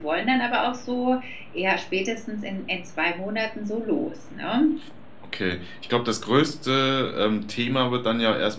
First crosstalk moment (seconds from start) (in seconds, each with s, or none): none